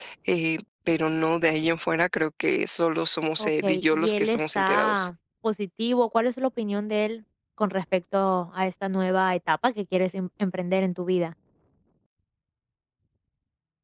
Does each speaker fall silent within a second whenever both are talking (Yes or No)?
No